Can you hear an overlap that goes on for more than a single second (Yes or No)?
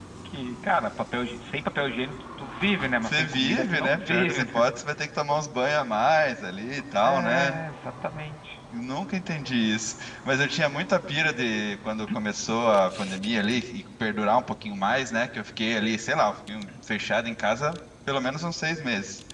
Yes